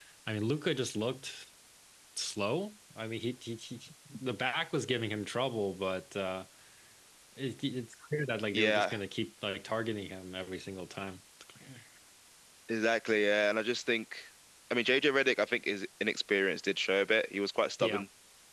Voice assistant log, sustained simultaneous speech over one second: none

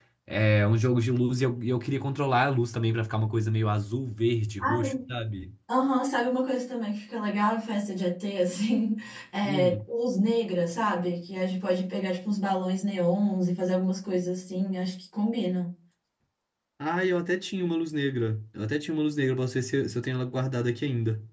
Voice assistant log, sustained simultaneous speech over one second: none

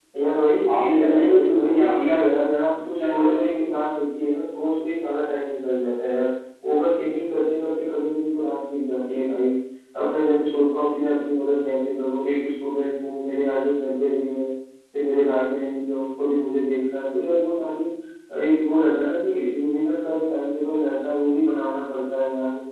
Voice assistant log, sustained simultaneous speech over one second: present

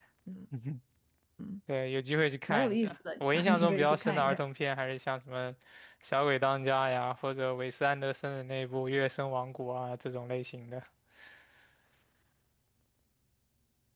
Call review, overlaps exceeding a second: present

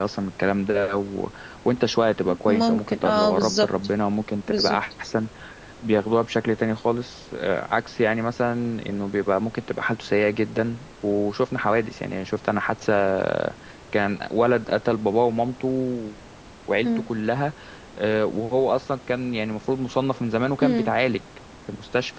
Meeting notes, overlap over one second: present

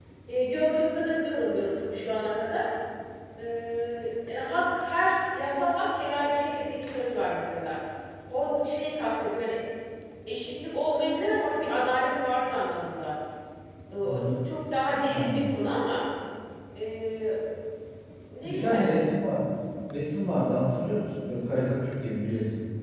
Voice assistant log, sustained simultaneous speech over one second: none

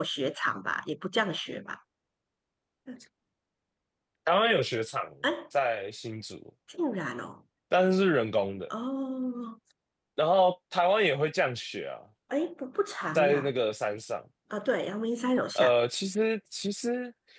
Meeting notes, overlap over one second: none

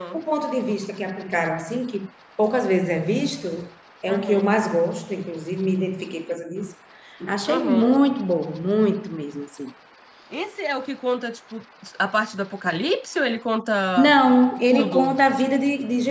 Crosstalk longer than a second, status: none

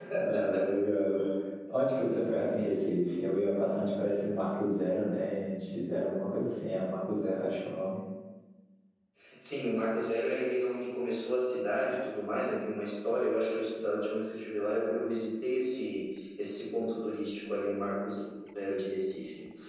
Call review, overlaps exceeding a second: none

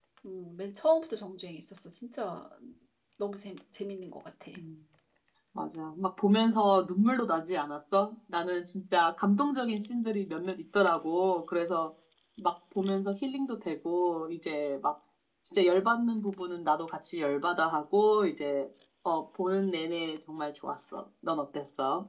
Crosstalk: none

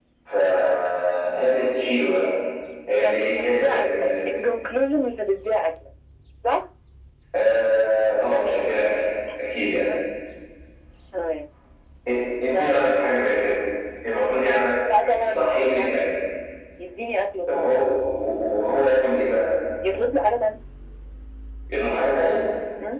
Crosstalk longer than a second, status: present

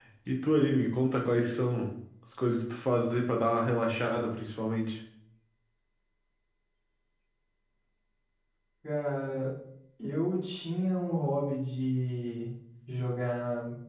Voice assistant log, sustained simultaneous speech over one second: none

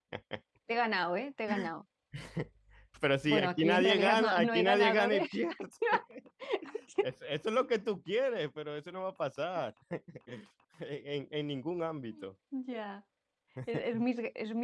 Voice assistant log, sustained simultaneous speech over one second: present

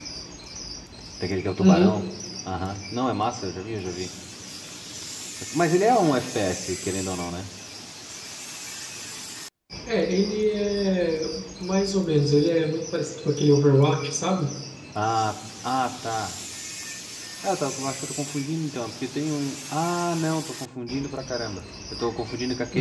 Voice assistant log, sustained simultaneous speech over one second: none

